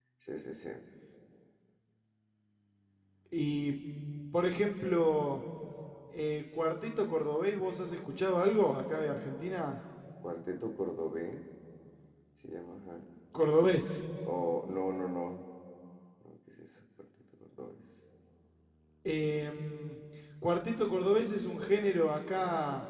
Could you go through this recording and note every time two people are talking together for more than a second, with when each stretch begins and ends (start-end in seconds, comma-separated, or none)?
none